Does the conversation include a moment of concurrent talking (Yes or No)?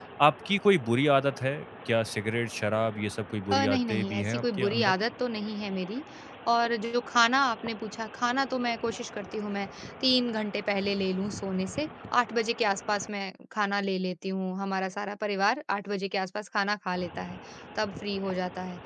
Yes